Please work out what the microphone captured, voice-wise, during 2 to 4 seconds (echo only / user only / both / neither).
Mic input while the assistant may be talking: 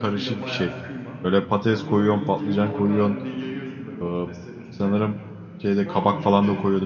both